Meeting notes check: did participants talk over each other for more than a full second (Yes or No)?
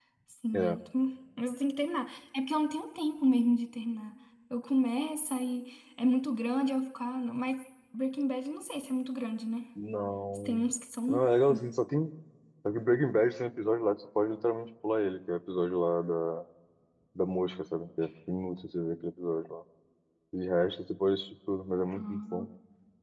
No